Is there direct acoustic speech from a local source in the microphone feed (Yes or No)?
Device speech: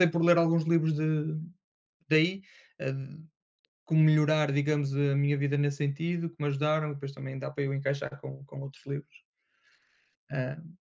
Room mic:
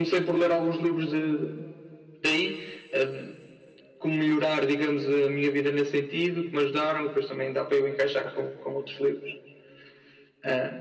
No